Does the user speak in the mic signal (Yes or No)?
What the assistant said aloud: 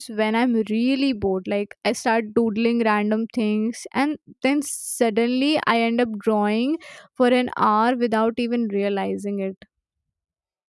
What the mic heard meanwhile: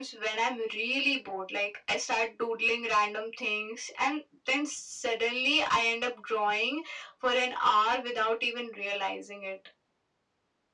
No